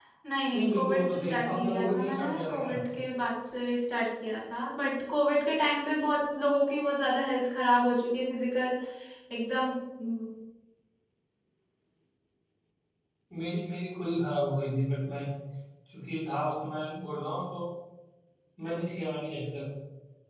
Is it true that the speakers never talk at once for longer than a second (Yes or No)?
No